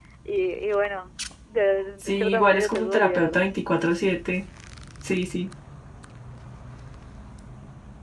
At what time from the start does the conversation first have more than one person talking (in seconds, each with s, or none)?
2.0 s